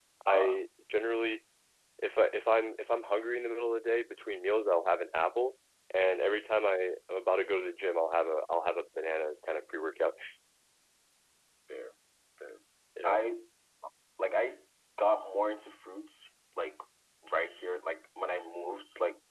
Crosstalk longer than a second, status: none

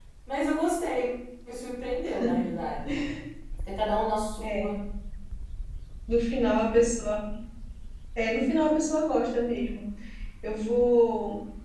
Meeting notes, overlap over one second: none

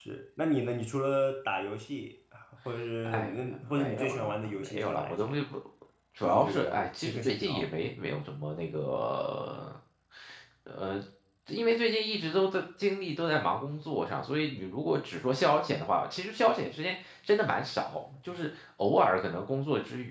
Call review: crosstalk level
present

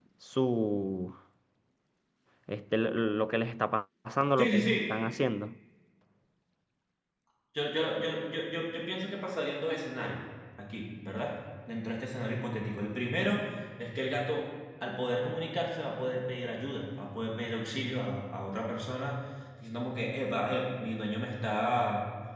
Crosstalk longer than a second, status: none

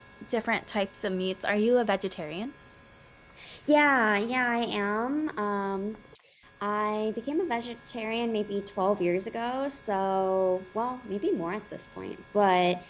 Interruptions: none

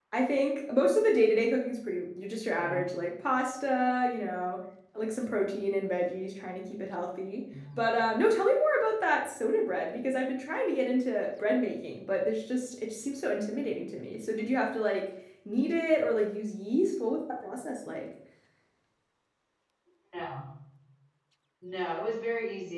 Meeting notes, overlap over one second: none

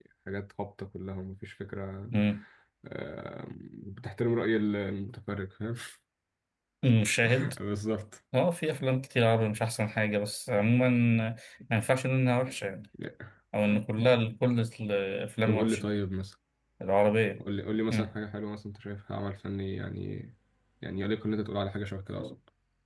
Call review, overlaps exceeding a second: none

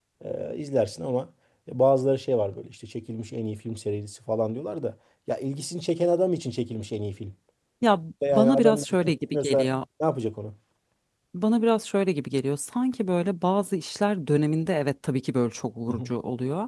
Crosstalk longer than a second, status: present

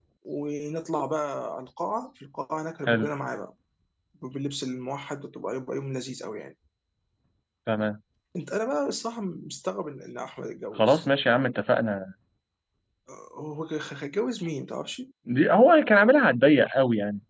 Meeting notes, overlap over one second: none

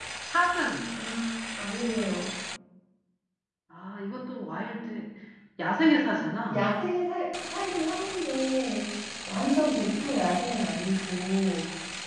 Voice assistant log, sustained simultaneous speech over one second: none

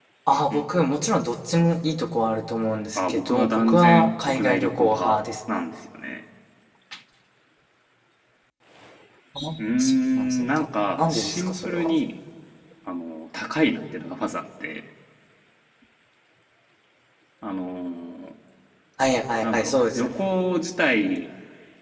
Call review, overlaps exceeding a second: present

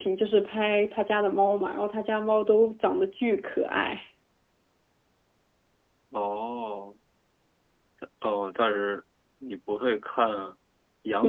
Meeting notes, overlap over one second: none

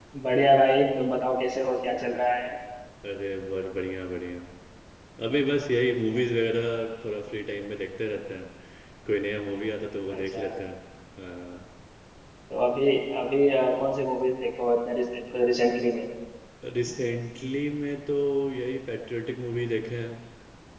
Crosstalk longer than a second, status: none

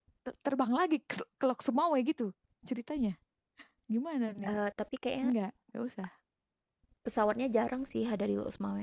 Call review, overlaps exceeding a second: none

